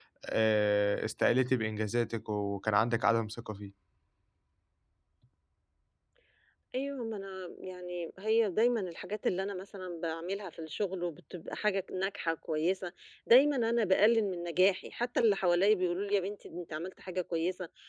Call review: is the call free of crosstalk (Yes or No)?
Yes